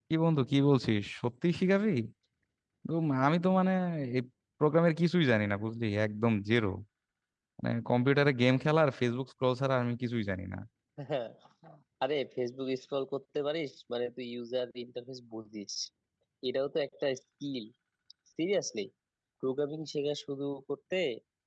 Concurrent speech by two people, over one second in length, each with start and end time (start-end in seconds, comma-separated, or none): none